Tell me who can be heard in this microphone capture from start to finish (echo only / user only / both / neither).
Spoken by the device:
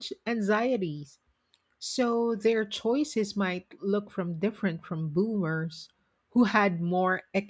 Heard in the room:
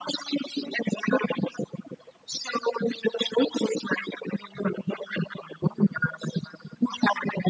echo only